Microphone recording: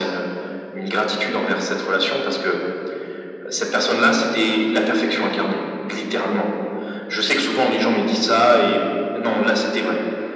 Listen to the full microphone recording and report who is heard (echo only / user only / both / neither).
echo only